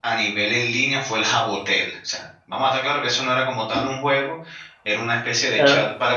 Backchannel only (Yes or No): Yes